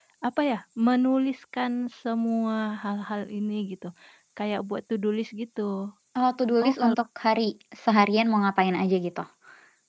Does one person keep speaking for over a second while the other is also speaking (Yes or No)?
No